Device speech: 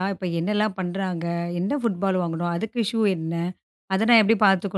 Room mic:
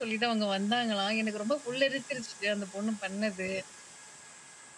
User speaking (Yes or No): Yes